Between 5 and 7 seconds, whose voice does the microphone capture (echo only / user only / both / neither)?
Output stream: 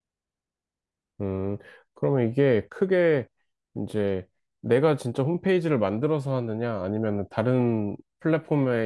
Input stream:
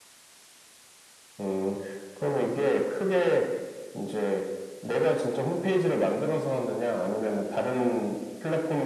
echo only